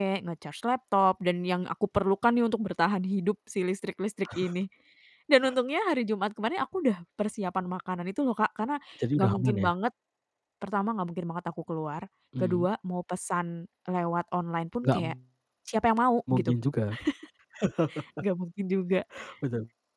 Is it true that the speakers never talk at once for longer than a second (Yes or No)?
Yes